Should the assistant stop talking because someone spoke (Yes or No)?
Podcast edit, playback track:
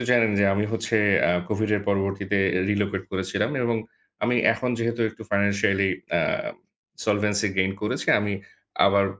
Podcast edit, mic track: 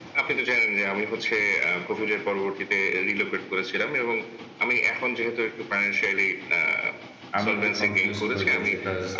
Yes